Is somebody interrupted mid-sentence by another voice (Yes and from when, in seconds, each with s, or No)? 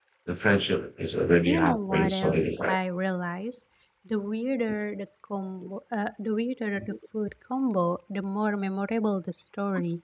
Yes, from 1.5 s